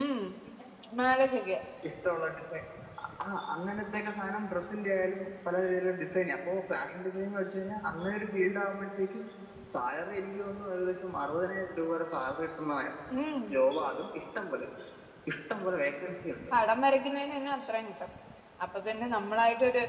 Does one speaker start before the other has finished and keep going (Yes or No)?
No